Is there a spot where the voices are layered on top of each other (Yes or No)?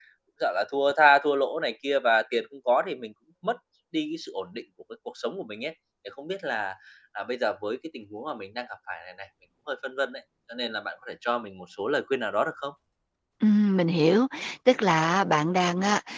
No